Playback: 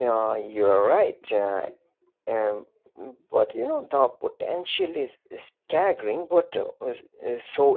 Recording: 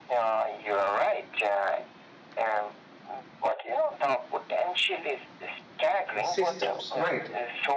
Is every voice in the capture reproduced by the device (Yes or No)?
No